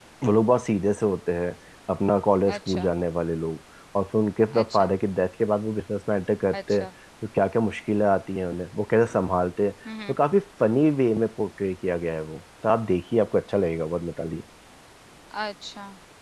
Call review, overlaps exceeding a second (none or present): none